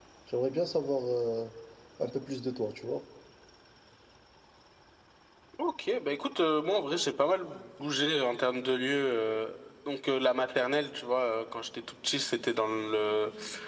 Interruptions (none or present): none